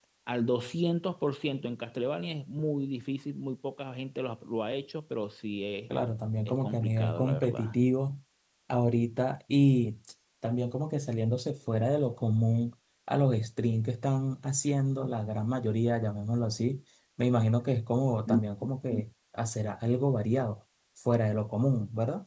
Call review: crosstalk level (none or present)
present